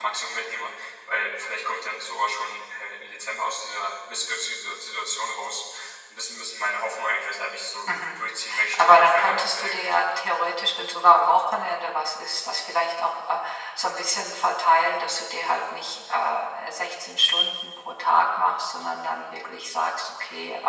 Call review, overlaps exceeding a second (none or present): present